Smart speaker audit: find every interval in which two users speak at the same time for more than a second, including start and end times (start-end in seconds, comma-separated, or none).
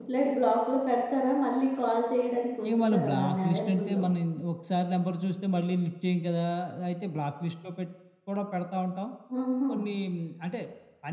2.6-4.0